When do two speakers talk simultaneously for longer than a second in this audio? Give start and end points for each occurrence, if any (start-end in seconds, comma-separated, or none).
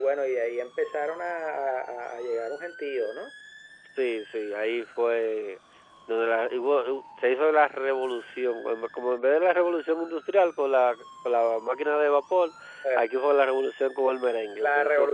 none